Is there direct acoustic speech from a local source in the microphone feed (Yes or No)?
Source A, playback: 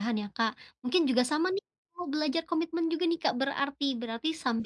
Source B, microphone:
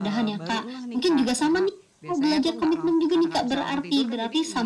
Yes